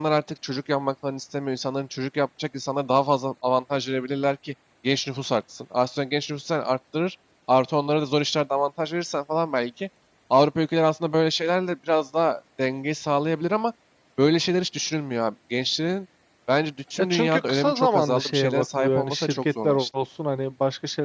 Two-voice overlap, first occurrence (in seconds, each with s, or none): 17.0 s